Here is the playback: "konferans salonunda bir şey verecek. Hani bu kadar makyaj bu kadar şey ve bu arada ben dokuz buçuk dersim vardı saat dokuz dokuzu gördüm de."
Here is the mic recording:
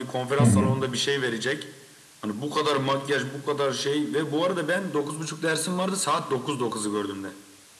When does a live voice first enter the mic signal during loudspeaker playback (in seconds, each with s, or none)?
0.4 s